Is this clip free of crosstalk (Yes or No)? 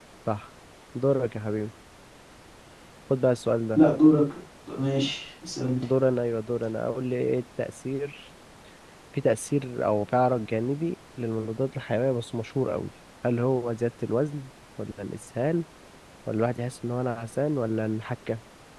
Yes